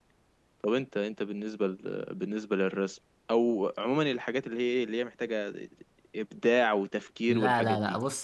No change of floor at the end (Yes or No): No